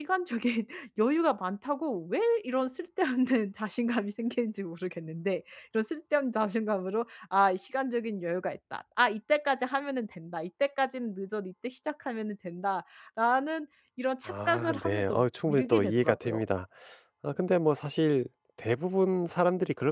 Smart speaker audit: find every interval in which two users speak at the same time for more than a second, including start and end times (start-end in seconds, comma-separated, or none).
14.3-16.4